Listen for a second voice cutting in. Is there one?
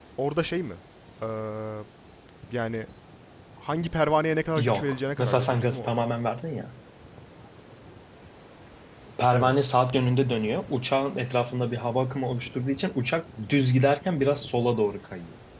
Yes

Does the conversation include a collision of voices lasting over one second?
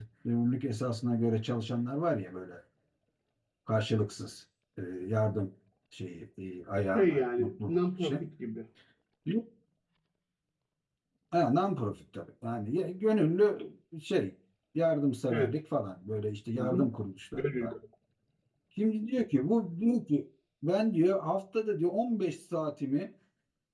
Yes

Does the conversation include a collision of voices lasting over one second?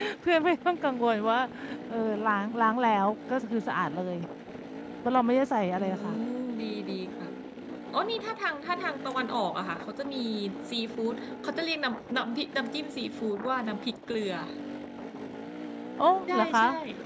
No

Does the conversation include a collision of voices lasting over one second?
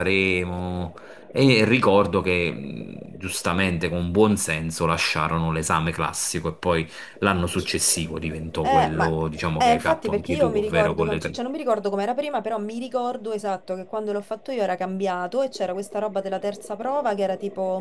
Yes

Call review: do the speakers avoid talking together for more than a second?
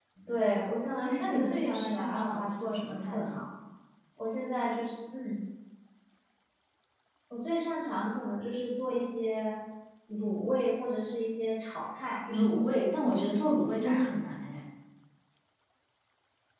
No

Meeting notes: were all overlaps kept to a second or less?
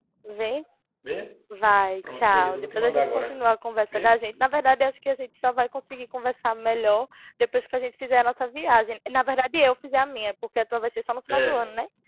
No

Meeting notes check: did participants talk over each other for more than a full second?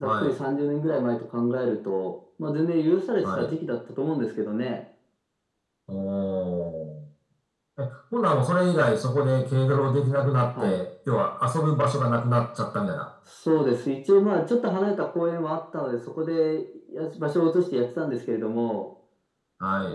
No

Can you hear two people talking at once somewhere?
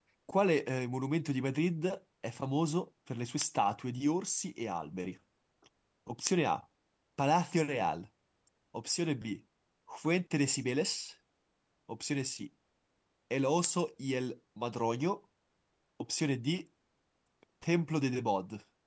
No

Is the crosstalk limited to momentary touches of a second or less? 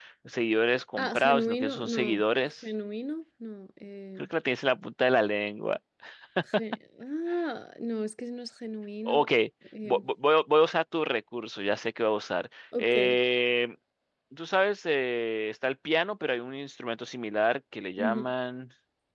No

